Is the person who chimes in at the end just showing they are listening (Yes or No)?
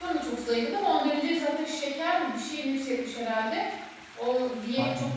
Yes